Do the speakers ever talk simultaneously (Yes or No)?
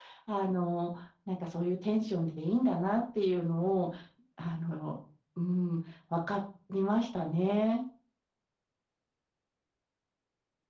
No